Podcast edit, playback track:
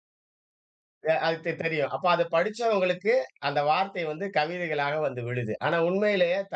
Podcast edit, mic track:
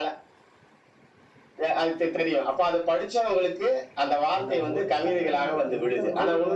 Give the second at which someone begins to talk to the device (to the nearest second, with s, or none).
4 s